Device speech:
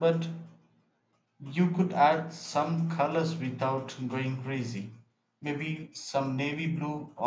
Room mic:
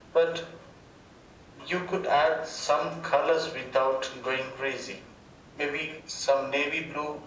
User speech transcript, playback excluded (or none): none